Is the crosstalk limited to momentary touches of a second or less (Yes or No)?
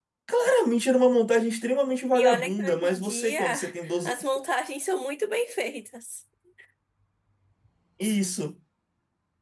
No